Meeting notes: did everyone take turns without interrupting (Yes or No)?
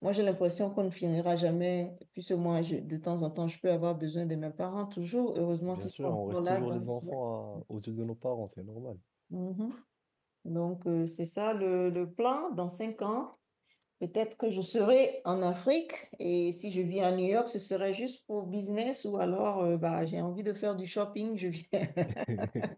No